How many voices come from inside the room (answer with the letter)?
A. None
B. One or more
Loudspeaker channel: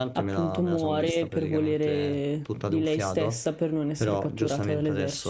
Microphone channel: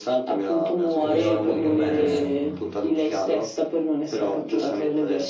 B